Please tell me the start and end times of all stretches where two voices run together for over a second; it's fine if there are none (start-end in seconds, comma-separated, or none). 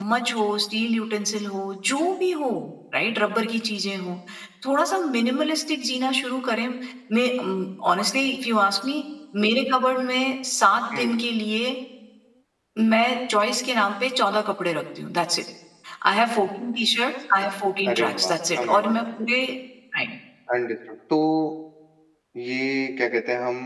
17.9-19.3